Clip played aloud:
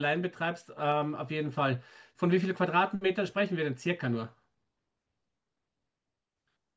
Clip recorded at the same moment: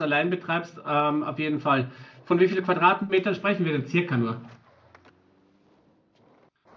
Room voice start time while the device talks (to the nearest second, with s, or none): none